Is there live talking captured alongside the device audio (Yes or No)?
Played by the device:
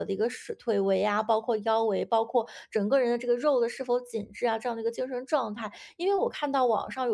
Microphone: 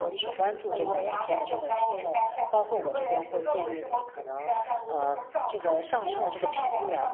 Yes